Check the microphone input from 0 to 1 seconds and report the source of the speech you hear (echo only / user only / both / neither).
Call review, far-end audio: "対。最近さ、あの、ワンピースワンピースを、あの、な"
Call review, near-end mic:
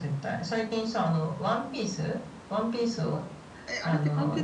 echo only